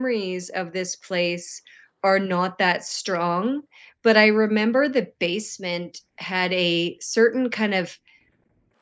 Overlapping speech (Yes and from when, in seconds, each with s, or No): No